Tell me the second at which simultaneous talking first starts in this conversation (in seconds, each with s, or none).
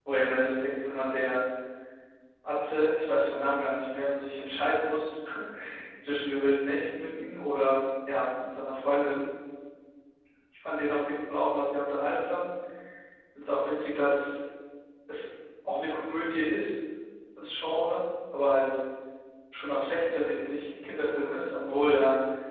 none